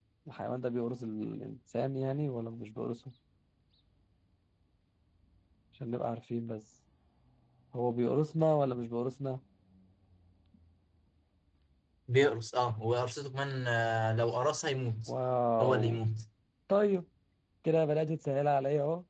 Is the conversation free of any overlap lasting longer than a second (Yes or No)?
Yes